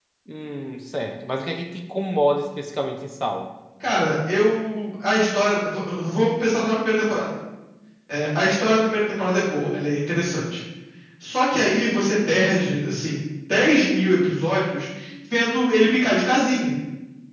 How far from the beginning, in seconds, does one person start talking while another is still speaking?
none

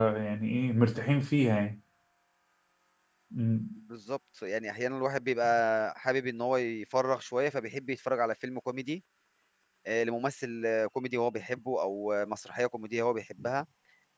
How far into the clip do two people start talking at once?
none

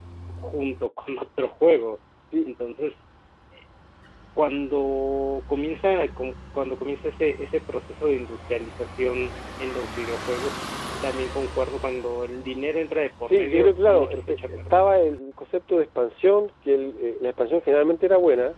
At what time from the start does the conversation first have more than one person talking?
13 s

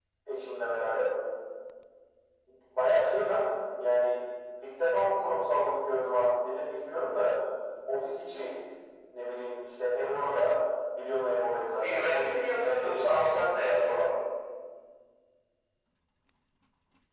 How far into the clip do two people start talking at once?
12 s

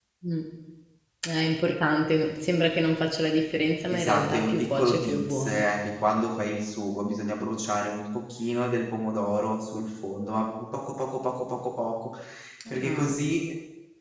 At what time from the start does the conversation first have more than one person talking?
4 s

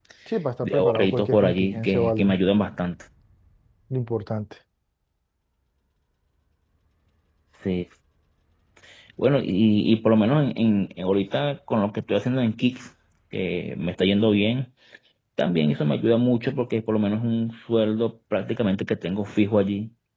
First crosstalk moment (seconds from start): 1 s

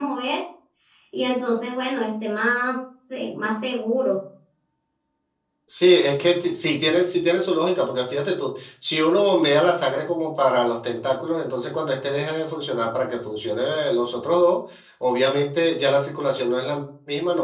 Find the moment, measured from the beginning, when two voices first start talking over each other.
none

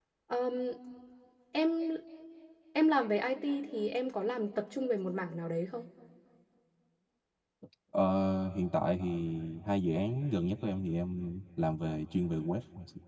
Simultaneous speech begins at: none

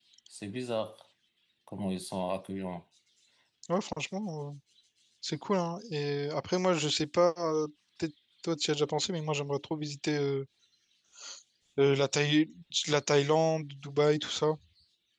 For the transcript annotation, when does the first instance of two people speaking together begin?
none

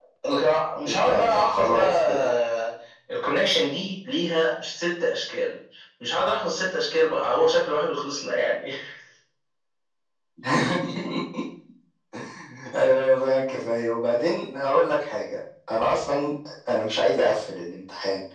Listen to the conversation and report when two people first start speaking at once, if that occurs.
1 s

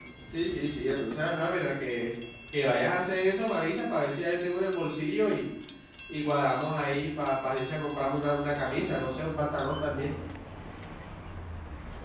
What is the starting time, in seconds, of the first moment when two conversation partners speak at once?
8 s

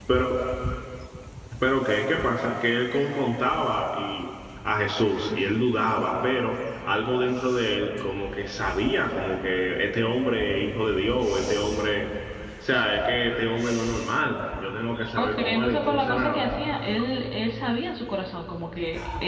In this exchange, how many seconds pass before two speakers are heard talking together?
15 s

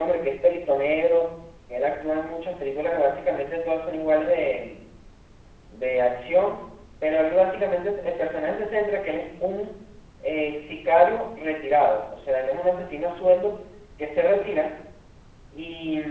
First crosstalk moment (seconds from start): none

